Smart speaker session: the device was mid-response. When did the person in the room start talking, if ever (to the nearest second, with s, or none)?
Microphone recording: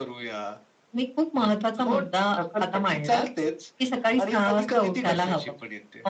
none